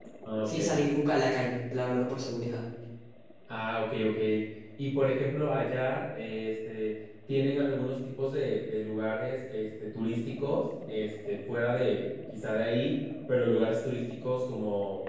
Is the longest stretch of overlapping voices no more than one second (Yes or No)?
Yes